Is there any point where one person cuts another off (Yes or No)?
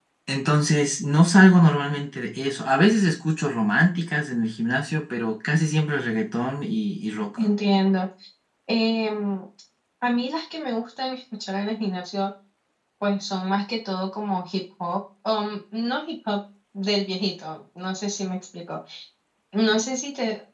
No